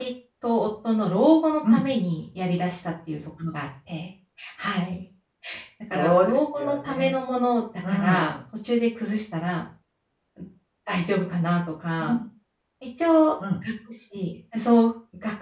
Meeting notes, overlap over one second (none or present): present